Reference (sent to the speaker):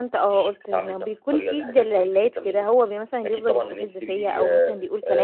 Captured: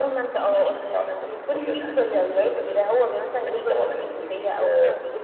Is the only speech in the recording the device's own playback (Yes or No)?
Yes